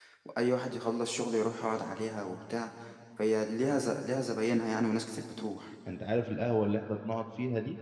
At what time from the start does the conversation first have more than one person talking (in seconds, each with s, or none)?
none